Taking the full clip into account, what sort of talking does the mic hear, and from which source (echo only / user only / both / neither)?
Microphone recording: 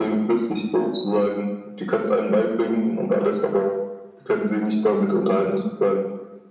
echo only